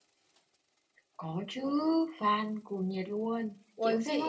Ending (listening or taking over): taking over